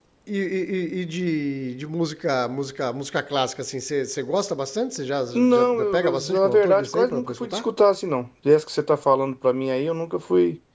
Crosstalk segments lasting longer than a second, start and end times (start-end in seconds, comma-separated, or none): 5.3-7.6